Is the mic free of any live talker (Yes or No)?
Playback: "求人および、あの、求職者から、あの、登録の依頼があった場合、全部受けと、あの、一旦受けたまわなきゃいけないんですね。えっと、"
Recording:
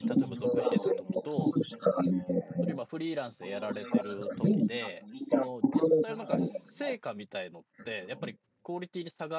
No